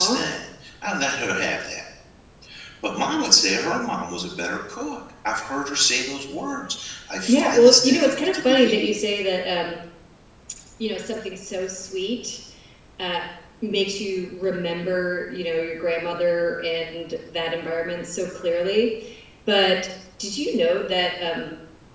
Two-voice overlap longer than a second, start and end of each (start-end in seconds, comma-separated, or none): 7.3-8.9